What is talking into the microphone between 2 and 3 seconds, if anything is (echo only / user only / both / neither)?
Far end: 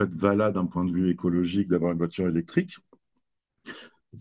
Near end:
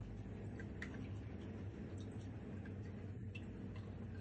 neither